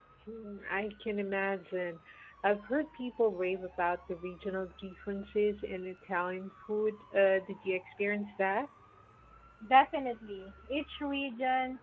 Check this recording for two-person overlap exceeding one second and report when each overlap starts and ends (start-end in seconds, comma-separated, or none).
none